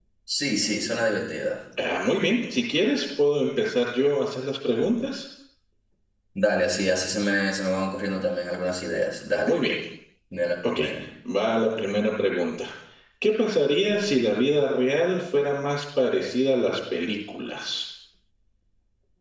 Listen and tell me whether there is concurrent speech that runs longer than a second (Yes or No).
No